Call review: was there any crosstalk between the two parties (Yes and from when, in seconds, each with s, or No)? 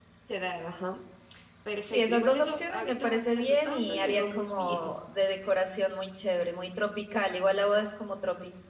Yes, from 1.9 s